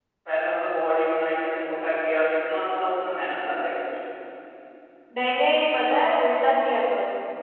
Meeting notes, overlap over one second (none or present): none